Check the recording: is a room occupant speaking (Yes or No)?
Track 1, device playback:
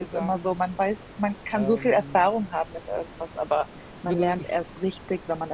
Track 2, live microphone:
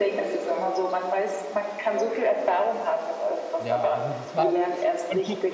Yes